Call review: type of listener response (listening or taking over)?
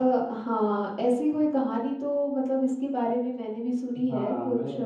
taking over